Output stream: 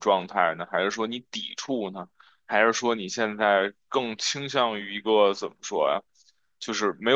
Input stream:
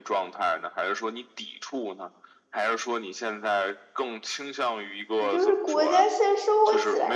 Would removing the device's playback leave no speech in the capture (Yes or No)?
No